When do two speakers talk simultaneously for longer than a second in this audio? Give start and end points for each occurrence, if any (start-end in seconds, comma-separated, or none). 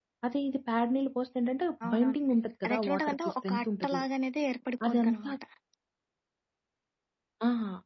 2.7-4.0